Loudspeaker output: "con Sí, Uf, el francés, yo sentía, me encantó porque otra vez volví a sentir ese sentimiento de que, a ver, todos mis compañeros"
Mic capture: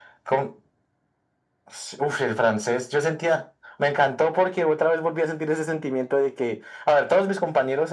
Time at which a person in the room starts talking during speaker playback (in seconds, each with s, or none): none